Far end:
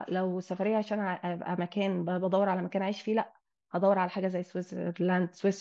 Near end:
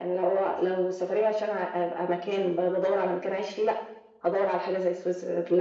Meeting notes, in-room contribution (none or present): none